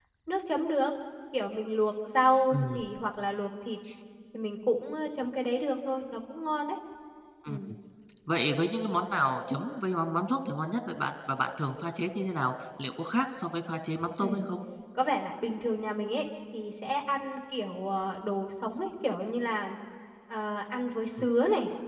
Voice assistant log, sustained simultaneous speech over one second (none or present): none